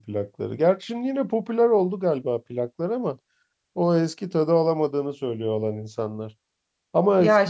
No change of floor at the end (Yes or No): Yes